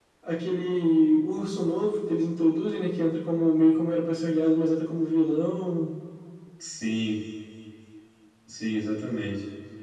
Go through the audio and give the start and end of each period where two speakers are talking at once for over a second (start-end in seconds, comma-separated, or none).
none